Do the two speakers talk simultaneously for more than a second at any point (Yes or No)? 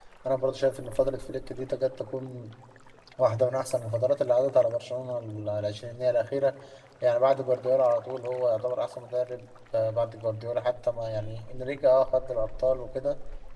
No